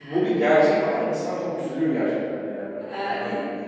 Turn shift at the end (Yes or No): Yes